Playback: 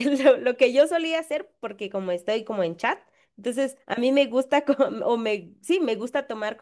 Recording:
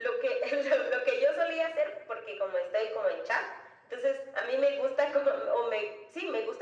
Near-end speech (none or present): none